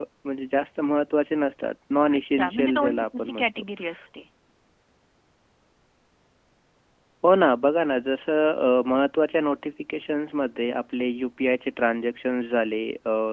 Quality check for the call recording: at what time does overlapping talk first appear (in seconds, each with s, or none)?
2.1 s